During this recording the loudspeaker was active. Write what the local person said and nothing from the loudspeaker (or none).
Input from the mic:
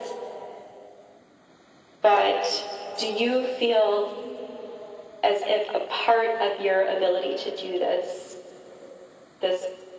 none